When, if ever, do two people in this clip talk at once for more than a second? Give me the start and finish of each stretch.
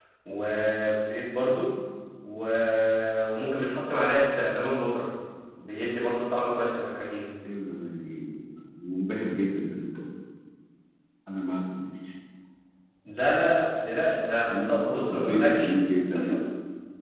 14.5-15.7

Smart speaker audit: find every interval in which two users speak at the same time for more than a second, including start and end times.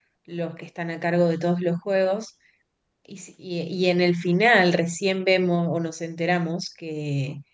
none

